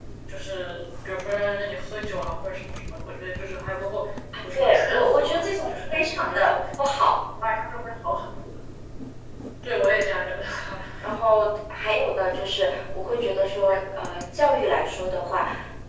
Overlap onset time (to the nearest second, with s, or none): 5 s